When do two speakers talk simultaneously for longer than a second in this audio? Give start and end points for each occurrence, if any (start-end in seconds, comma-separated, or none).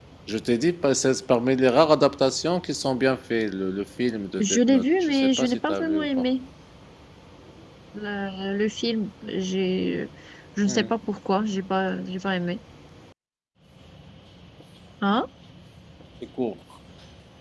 4.4-6.2